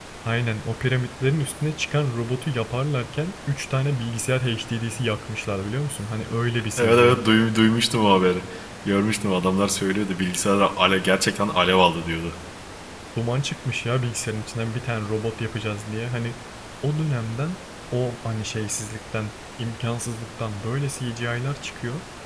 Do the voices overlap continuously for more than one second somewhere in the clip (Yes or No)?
No